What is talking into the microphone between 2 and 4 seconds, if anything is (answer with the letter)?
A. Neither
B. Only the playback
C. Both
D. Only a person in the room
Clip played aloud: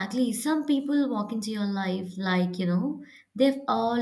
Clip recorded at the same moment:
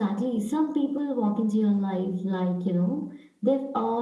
B